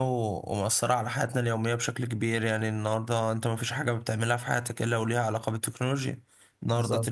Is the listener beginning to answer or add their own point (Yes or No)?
No